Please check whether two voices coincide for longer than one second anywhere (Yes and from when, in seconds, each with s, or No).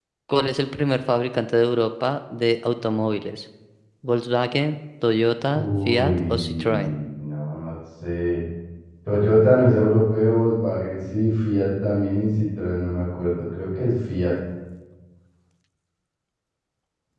Yes, from 5.5 s